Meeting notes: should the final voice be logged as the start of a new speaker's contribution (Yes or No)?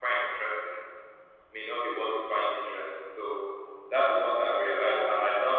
No